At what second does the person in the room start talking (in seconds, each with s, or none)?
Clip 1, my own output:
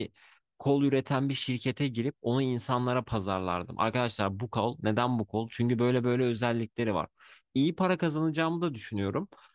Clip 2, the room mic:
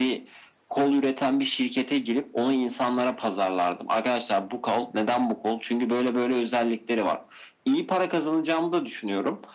none